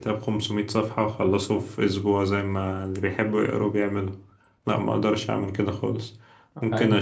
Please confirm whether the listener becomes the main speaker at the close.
No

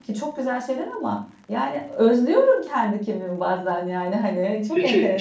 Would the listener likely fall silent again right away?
No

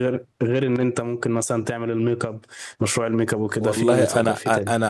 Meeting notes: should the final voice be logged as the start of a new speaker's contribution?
Yes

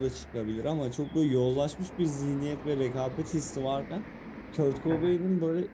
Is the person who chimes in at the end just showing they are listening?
Yes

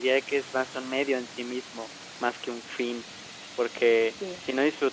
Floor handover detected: No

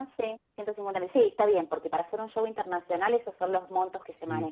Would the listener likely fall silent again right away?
No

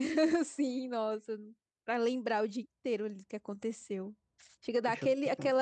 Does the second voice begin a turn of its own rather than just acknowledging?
No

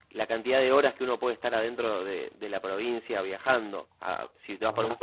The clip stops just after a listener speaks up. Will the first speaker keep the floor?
Yes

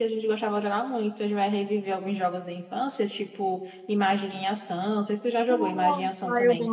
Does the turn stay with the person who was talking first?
No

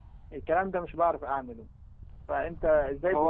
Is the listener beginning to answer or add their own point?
Yes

